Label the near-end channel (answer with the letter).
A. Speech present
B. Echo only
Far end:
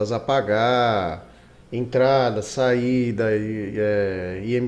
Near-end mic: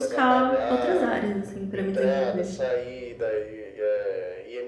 A